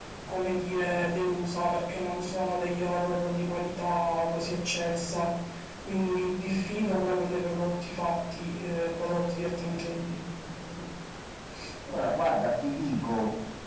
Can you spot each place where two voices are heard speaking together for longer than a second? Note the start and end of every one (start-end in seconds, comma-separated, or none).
none